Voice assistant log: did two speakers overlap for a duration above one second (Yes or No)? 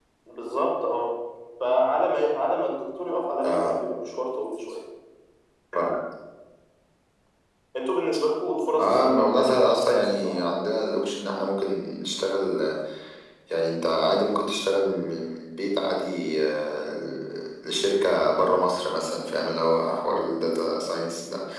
Yes